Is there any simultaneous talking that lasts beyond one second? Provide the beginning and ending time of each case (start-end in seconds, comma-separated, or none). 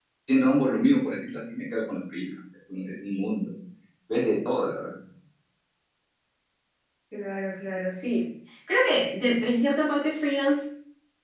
none